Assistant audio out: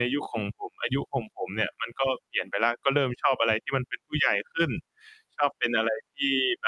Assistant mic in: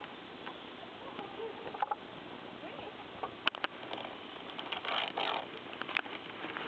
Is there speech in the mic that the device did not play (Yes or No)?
No